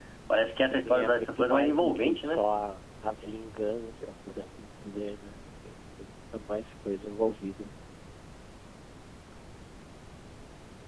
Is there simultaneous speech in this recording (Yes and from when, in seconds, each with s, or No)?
Yes, from 0.8 s